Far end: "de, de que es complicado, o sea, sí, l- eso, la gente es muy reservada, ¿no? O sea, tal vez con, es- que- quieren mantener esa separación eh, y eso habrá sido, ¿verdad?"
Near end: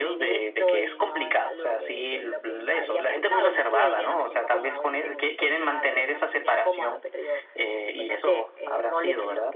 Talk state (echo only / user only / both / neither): both